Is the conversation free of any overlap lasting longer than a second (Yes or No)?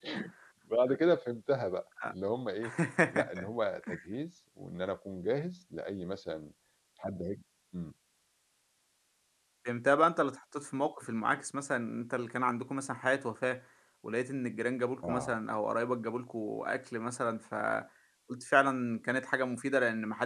Yes